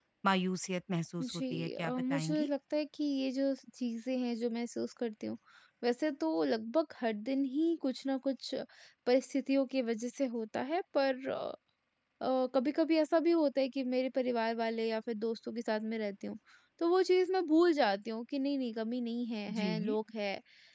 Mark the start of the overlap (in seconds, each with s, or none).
1.2 s